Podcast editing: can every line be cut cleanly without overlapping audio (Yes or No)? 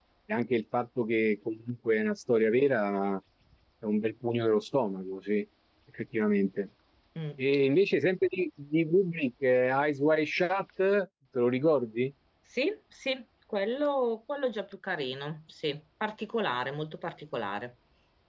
Yes